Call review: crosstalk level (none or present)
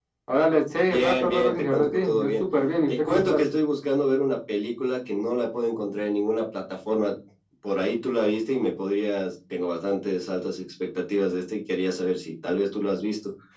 present